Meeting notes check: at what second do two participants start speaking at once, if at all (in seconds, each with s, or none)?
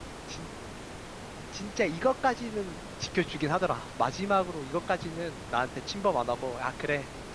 none